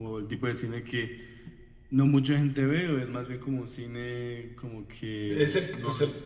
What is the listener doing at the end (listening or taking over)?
taking over